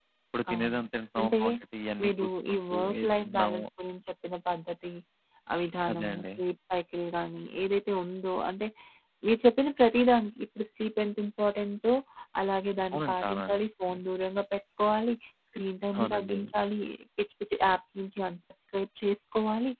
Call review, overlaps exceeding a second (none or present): present